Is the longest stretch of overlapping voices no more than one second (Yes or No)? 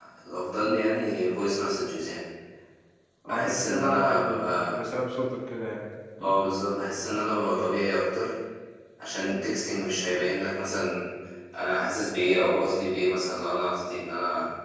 No